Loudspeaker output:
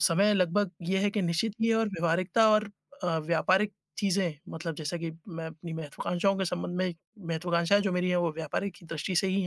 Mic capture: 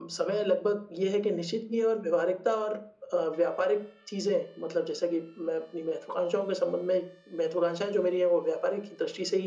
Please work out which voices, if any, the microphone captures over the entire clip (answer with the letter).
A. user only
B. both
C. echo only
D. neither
C